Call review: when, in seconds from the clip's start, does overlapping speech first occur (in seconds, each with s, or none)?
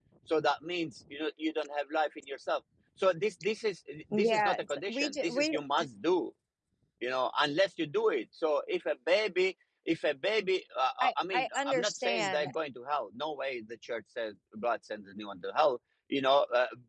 4.1 s